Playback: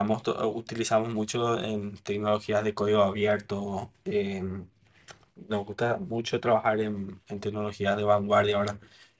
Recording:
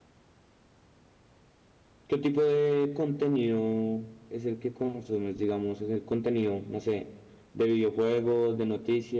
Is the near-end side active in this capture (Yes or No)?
Yes